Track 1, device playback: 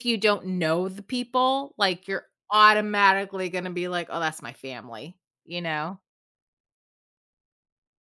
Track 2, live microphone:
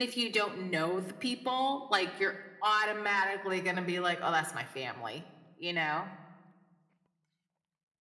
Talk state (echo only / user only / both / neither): echo only